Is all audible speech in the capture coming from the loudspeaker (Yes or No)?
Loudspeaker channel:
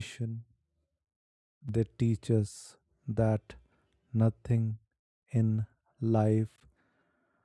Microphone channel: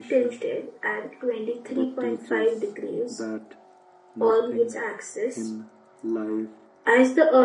No